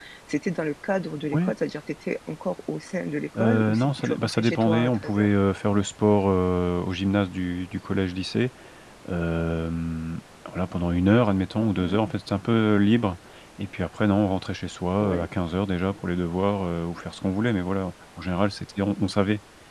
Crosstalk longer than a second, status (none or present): present